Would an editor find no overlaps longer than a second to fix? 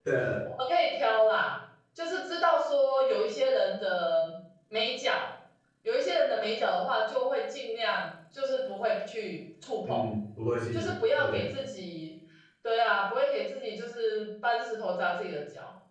Yes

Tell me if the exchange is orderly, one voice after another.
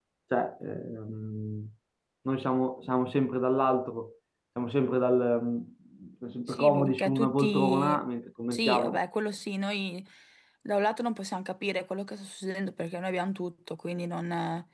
No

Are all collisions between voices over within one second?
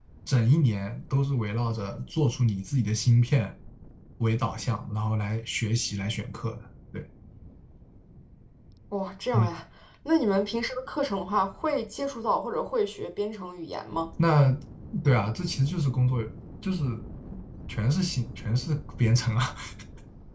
Yes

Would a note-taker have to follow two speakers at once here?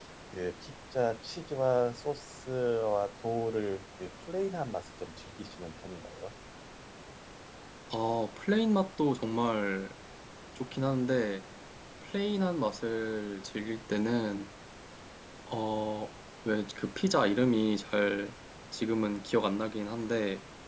No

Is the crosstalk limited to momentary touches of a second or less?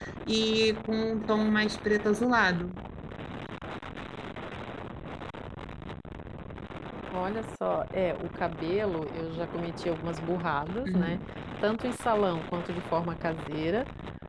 Yes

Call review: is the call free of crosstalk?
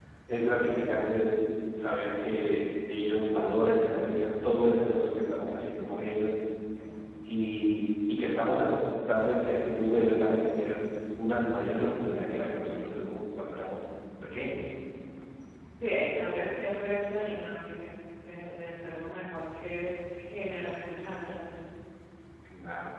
Yes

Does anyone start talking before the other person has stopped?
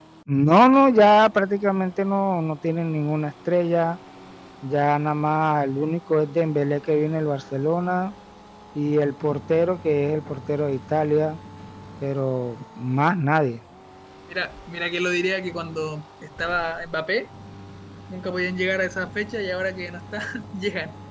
No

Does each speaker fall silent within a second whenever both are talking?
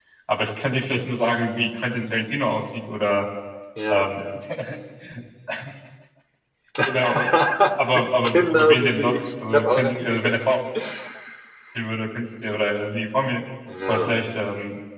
No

